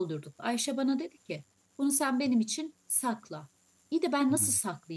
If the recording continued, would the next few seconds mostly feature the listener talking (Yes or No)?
No